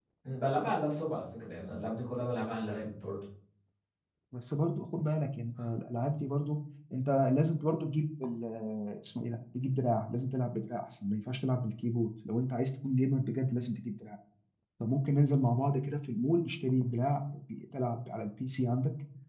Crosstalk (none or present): none